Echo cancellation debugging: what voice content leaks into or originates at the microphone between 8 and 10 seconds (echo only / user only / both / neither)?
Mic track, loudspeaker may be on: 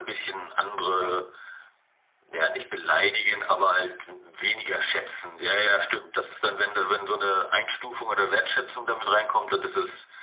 echo only